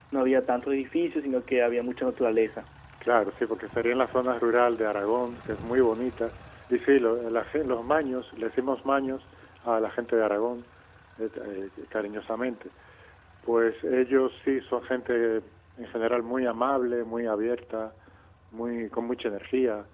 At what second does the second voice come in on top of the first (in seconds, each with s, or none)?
none